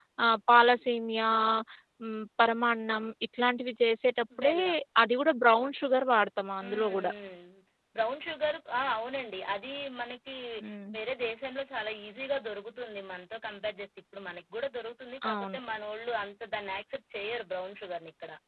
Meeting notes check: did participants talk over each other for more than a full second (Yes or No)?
No